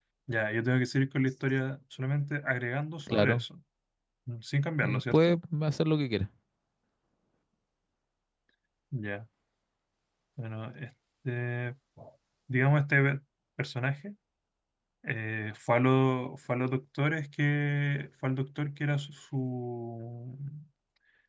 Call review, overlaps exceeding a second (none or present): none